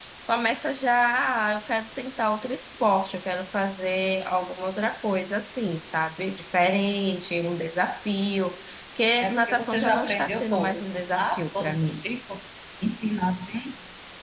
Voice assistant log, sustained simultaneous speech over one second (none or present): present